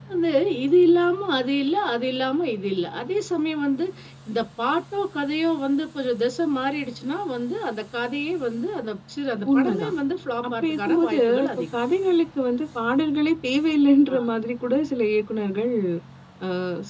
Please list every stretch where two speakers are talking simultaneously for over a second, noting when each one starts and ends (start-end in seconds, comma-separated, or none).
10.5-11.8